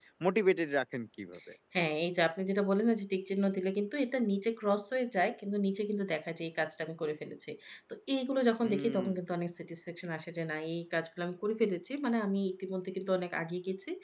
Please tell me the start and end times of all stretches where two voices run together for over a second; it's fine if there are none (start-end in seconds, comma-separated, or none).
none